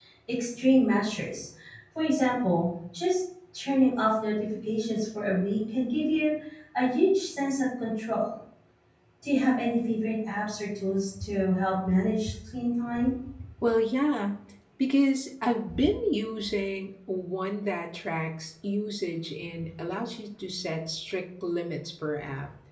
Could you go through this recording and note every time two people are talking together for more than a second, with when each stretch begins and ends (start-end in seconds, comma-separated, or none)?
none